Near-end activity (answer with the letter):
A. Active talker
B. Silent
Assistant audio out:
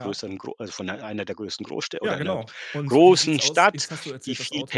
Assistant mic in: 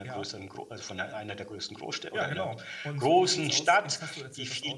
B